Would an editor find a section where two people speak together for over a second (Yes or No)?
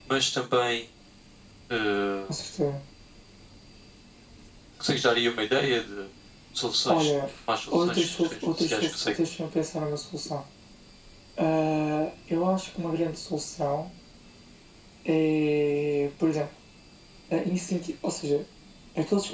Yes